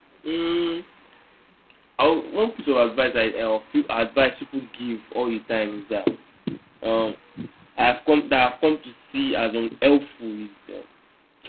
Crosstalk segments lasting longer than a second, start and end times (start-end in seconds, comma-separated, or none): none